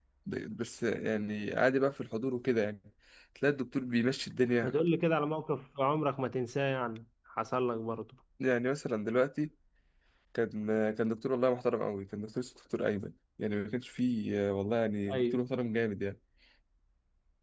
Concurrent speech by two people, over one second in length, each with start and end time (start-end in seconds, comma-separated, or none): none